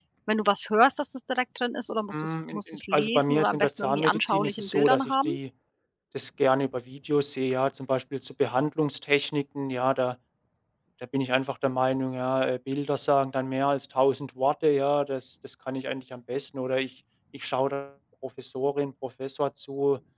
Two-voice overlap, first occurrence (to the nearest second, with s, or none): 2 s